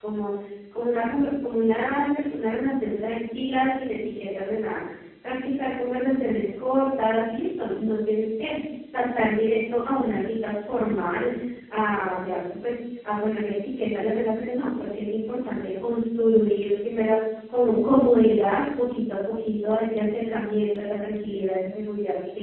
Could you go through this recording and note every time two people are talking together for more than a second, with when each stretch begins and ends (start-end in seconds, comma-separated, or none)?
none